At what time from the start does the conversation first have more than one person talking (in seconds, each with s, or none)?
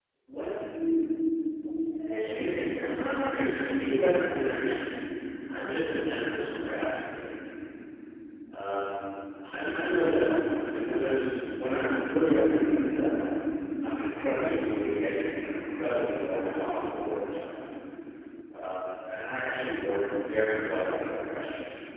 2.2 s